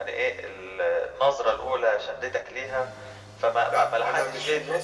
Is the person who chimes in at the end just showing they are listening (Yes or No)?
No